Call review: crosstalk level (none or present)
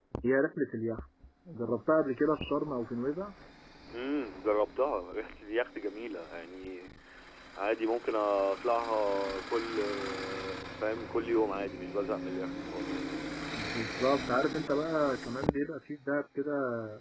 none